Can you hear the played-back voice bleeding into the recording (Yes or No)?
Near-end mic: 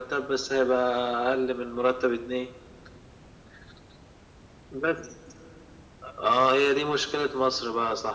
Yes